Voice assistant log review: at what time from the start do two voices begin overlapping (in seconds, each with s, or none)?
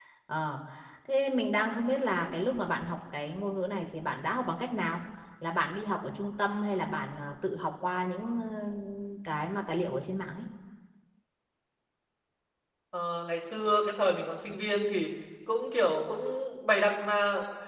none